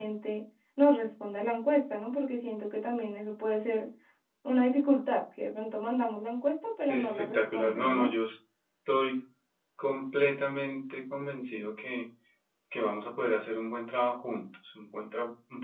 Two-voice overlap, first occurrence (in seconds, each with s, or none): 6.9 s